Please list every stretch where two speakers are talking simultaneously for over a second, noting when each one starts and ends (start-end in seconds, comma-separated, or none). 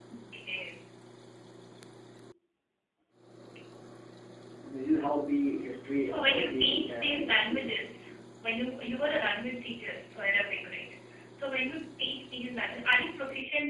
6.0-7.7